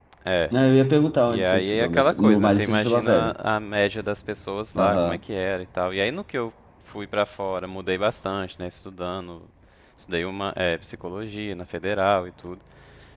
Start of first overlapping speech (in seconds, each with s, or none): 1.3 s